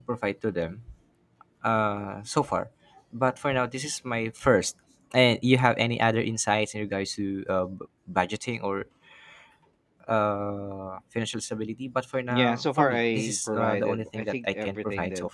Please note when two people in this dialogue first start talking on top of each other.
12 s

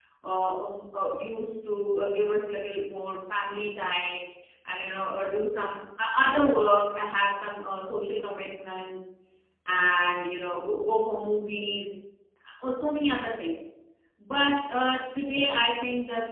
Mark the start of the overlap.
none

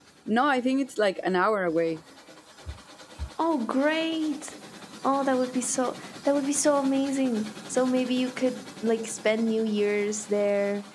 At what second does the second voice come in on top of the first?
none

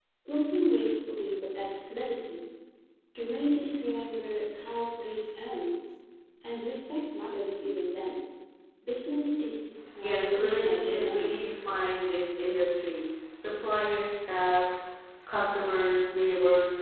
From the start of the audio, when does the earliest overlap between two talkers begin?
10 s

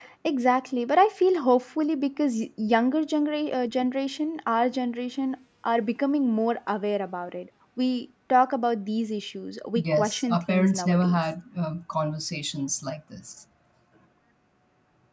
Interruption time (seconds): 10 s

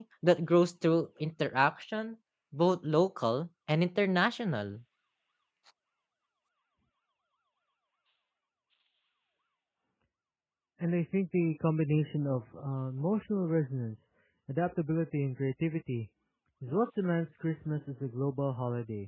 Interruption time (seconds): none

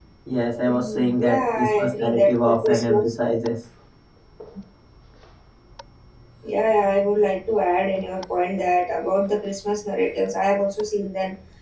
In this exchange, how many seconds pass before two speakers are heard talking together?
1 s

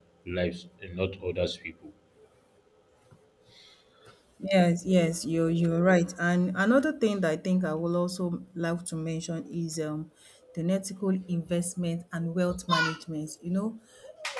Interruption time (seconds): none

